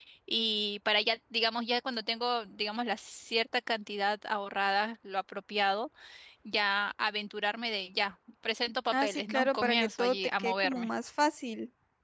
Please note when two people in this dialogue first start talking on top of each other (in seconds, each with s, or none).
8.9 s